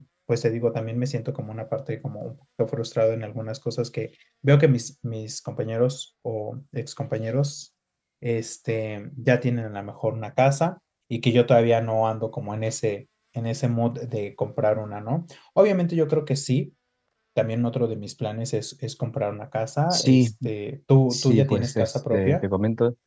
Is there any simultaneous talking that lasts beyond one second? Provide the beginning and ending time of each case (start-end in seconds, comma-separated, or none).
21.1-22.4